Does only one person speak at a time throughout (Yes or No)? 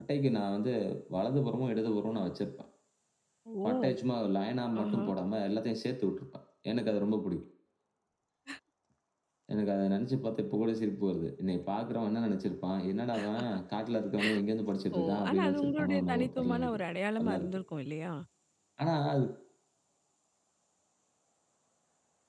No